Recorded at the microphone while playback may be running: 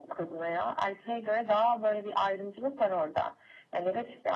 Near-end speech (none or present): none